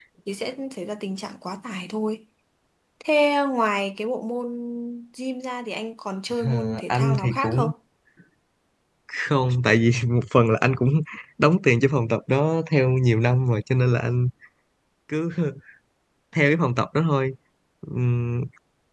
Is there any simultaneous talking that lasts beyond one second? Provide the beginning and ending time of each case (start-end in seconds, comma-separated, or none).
6.4-7.7